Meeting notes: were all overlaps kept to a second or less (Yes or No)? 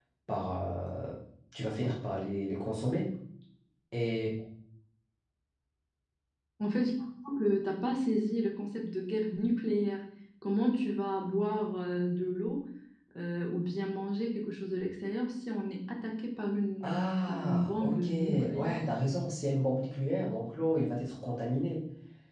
No